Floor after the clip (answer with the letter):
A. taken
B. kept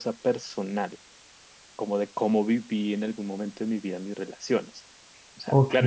B